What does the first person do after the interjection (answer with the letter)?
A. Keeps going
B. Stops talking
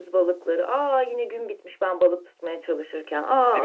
B